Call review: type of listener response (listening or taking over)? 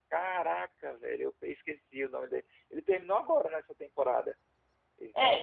taking over